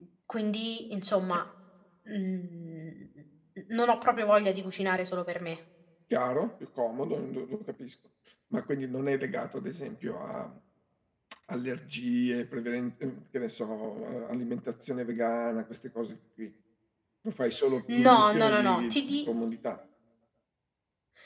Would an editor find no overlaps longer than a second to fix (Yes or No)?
No